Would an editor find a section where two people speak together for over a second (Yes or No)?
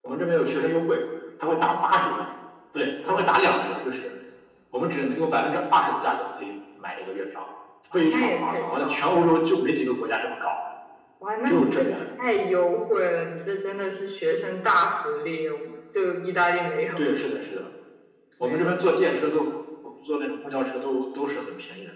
Yes